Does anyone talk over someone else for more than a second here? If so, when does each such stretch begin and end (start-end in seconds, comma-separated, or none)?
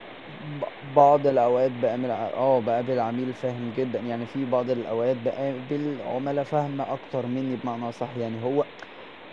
none